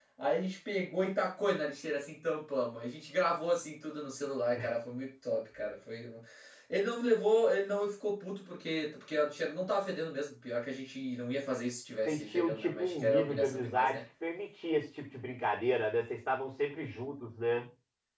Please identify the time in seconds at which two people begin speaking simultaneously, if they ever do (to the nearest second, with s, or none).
12 s